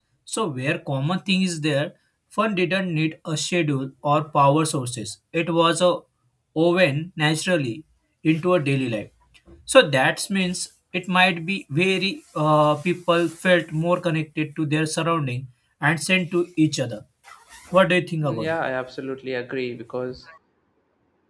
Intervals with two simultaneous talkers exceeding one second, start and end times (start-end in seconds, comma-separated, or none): none